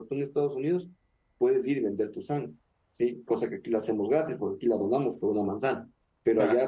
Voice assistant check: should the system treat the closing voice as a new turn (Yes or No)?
No